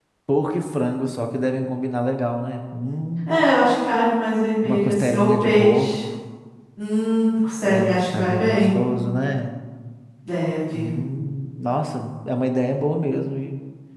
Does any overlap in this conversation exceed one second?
Yes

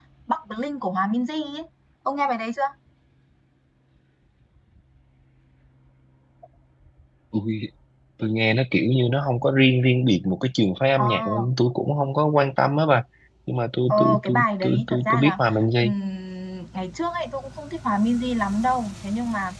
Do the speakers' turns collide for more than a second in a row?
Yes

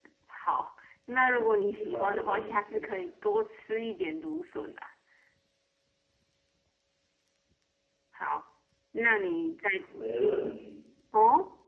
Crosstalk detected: Yes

